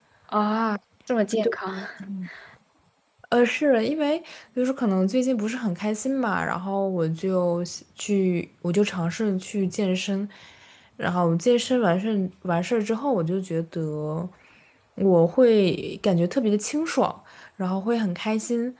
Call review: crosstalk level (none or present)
none